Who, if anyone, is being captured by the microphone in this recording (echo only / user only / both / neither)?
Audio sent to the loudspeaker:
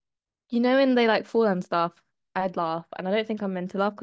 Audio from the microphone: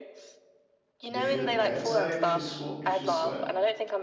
both